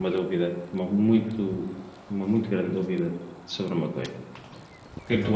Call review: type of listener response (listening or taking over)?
listening